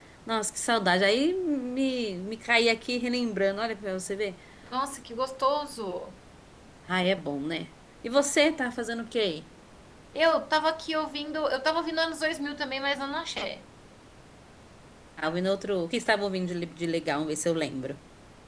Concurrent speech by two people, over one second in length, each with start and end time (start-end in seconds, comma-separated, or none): none